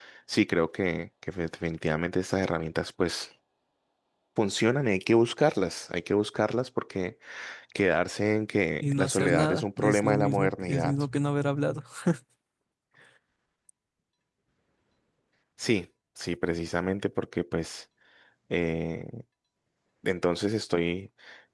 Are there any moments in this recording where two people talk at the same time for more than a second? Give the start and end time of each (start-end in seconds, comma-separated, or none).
8.9-10.9